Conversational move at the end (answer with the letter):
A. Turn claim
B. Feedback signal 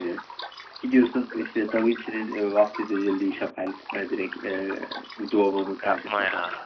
A